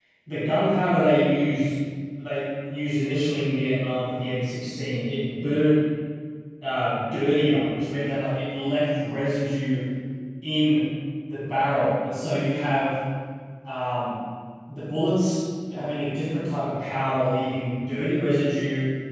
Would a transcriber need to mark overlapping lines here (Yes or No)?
No